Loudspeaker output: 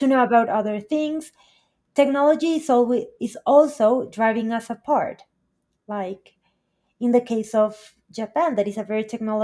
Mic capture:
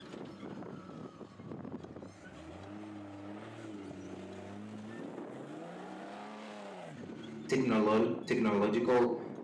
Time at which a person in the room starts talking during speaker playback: 7.5 s

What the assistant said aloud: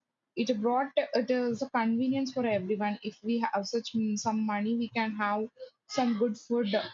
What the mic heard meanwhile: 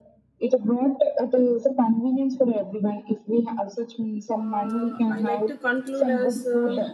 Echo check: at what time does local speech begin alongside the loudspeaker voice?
4.4 s

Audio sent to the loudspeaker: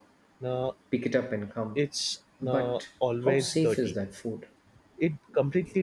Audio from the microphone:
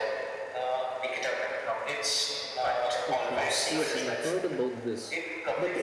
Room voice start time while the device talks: 3.1 s

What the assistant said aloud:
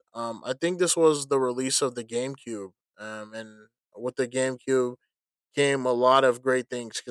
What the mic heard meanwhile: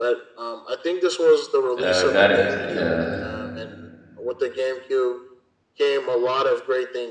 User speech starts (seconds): 1.8 s

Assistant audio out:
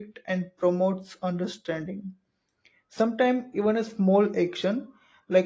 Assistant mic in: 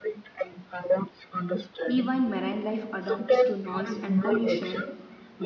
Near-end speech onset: 1.8 s

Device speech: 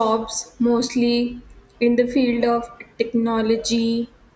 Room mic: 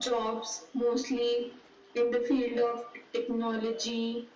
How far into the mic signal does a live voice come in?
none

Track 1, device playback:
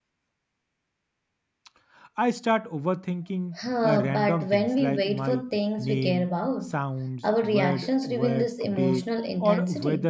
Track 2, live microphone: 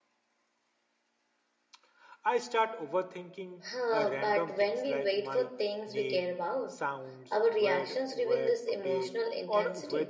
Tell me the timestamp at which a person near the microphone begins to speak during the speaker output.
none

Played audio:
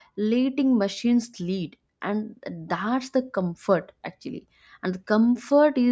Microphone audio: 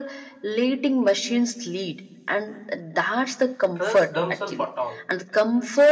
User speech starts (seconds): 3.7 s

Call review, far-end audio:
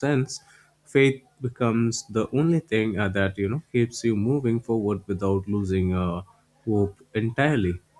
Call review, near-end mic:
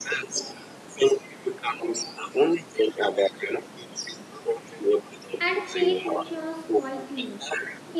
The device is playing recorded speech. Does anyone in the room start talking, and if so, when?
5.4 s

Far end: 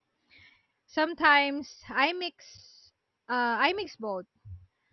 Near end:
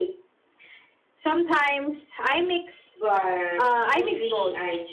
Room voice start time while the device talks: 3.0 s

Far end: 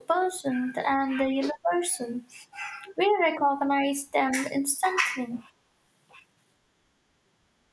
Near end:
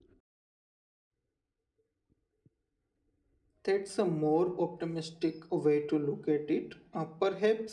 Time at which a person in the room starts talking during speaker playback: 3.6 s

